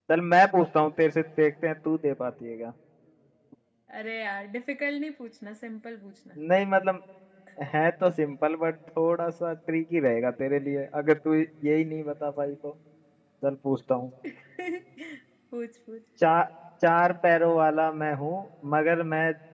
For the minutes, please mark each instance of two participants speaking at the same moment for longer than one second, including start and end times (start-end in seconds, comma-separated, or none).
none